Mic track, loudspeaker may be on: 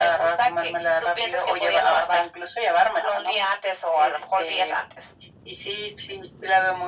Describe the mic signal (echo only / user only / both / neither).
echo only